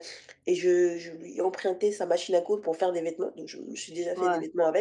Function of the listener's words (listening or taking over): listening